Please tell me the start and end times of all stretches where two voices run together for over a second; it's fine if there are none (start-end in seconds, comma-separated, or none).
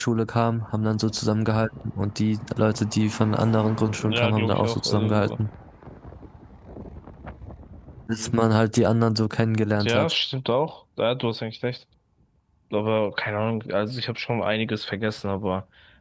4.0-5.3